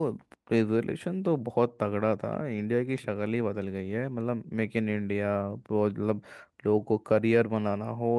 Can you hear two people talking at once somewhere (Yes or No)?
No